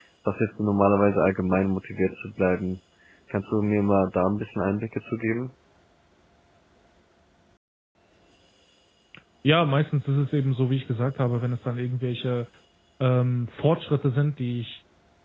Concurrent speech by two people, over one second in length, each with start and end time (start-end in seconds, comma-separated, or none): none